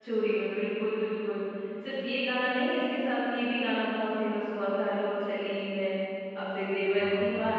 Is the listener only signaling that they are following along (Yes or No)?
Yes